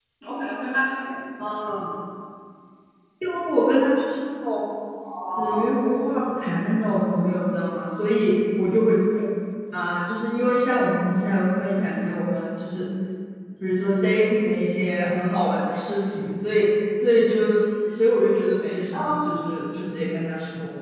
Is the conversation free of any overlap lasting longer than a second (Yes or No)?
Yes